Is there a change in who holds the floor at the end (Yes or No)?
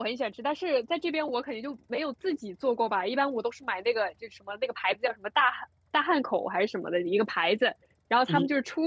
No